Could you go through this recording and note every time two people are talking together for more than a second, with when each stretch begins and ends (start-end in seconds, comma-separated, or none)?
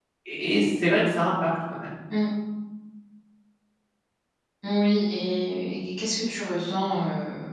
none